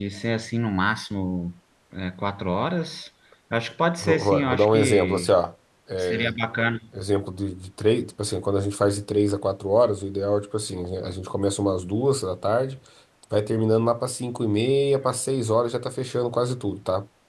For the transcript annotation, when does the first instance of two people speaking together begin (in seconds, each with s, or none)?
4.0 s